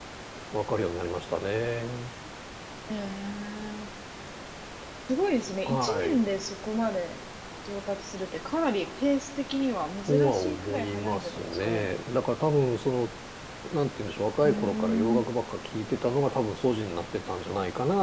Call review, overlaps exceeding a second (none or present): present